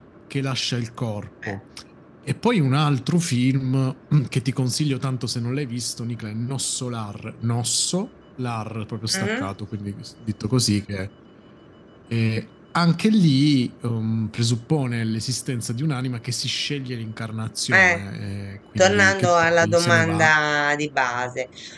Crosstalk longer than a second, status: present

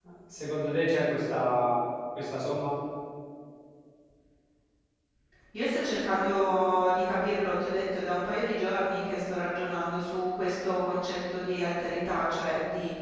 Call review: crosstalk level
none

